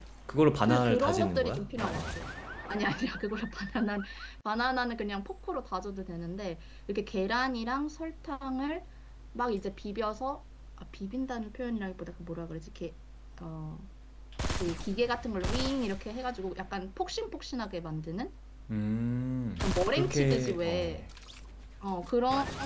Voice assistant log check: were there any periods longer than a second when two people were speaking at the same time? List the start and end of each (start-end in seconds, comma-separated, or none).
0.7-2.2, 19.6-21.0